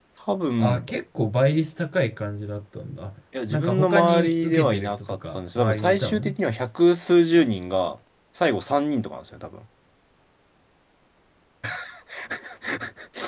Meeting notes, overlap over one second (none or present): present